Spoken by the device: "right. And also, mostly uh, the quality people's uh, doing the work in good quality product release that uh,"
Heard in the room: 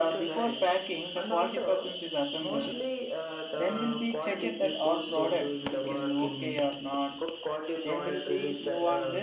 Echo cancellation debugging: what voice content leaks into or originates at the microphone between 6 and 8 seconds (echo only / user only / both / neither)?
both